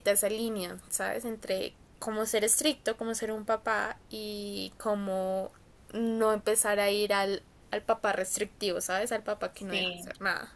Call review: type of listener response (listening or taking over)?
taking over